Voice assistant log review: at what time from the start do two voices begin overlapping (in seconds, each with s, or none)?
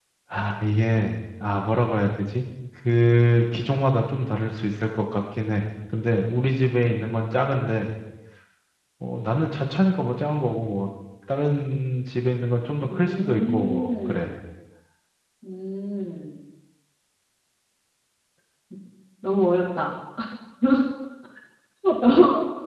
12.9 s